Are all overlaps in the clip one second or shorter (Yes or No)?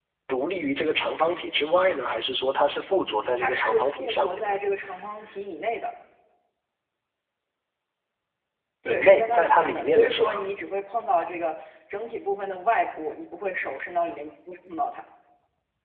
No